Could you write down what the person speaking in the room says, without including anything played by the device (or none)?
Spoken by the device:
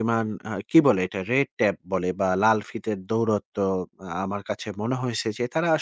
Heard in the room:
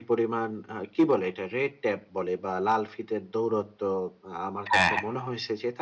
হ্যাঁ, হ্যাঁ,